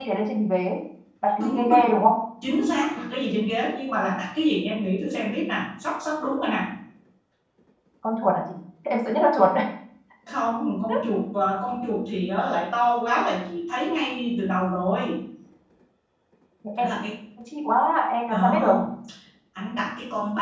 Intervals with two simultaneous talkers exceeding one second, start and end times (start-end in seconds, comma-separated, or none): none